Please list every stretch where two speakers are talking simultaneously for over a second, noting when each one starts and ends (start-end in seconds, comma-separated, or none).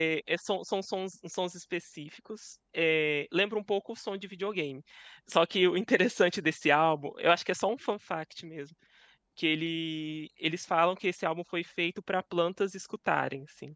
none